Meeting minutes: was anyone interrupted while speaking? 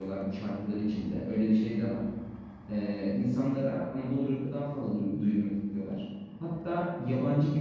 No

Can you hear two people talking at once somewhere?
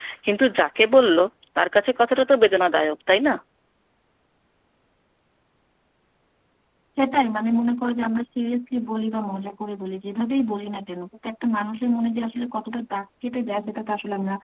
No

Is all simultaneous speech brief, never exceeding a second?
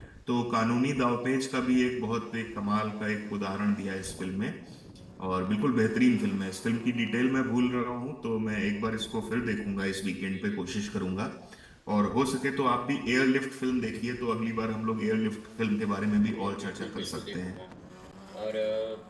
No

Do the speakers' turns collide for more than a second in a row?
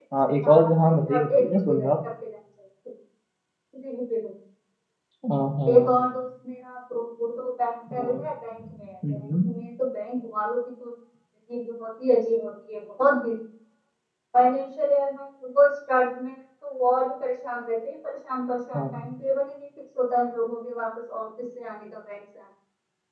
Yes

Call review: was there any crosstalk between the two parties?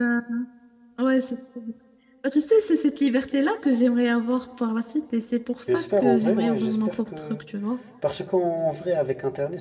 Yes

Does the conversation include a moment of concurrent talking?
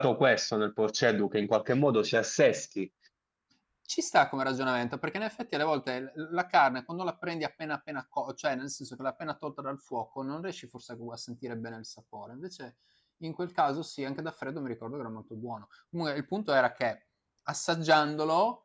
No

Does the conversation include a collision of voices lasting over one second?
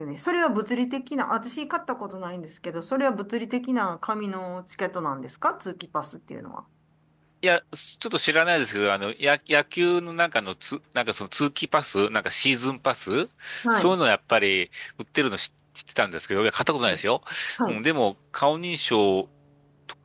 No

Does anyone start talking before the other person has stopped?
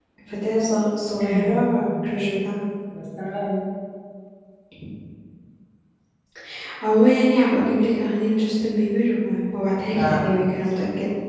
Yes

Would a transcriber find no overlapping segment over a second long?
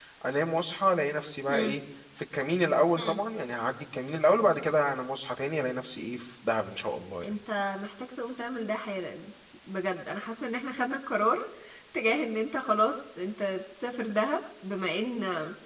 Yes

